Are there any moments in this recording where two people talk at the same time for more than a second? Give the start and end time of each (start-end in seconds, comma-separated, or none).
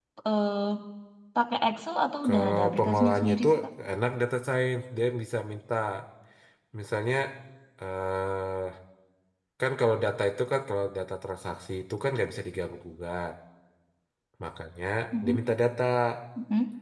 2.2-3.5